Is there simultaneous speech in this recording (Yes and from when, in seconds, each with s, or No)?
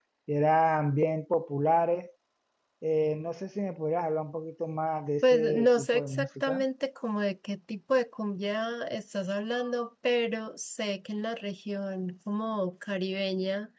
Yes, from 5.2 s